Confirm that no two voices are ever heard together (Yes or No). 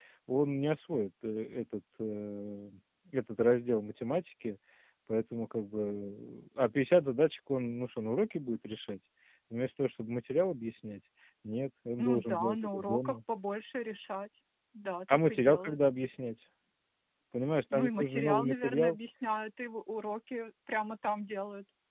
No